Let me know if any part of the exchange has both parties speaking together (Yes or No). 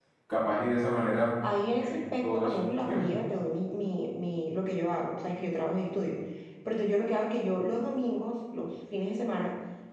Yes